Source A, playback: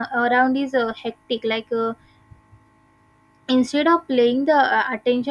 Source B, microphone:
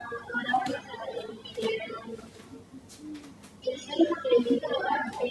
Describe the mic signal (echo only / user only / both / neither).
echo only